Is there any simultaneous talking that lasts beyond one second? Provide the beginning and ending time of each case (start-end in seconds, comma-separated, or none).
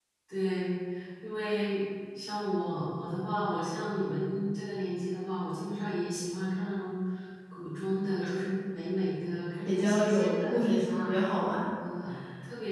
9.6-11.1